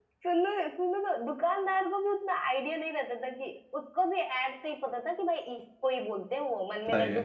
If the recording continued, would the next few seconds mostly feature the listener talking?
No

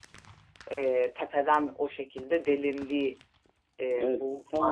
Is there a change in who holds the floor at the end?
Yes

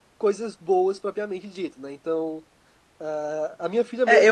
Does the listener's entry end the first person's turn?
Yes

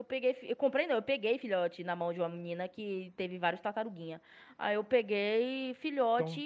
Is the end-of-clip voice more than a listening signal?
Yes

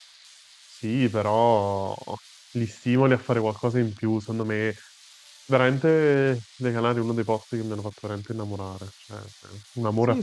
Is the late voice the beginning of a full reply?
Yes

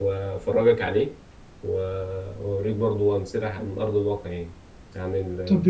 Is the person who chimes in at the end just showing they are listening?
No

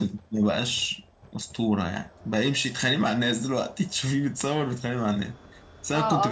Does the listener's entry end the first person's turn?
Yes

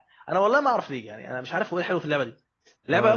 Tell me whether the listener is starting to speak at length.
Yes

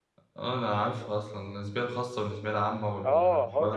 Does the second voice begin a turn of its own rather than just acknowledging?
Yes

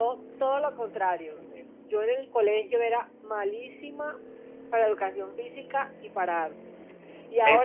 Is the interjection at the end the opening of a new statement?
No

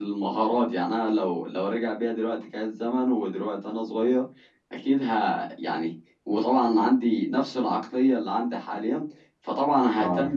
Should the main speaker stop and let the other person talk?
No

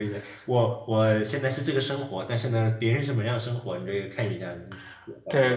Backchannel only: No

